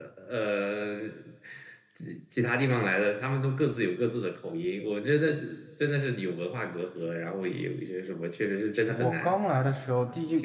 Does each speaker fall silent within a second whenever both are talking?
Yes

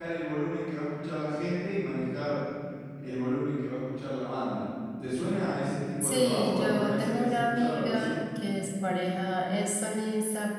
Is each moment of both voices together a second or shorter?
No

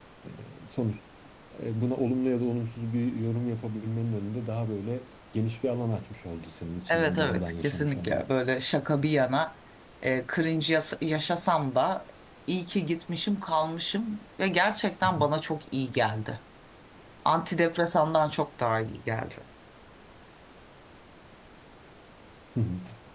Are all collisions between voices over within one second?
No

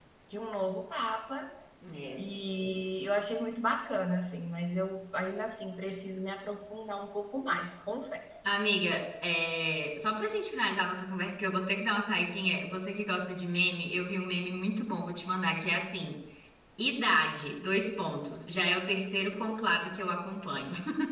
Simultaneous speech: No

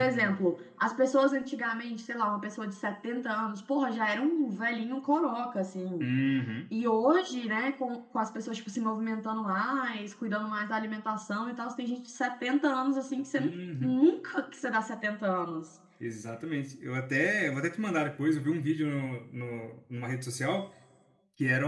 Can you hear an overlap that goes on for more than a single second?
No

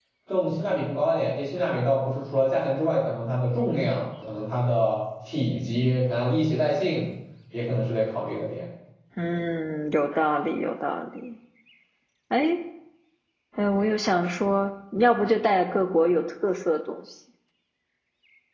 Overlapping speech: No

